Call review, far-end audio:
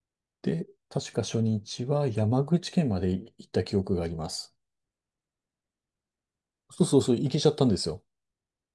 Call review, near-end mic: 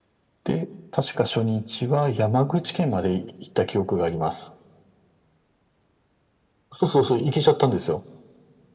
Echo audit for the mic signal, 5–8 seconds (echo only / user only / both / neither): echo only